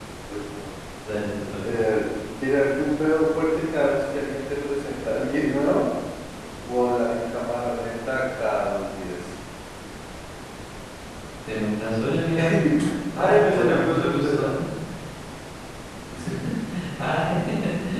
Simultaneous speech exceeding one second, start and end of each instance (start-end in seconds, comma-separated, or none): 13.2-14.4